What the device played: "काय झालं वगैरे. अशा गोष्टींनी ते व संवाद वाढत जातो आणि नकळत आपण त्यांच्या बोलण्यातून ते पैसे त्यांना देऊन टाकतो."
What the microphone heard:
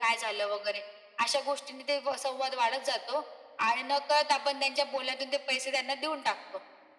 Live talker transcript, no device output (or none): none